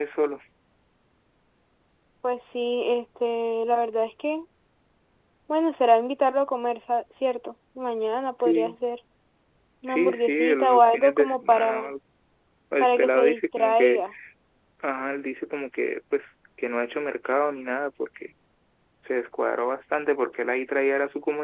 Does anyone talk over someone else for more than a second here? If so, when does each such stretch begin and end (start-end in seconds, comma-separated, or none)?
9.9-11.9, 12.8-14.0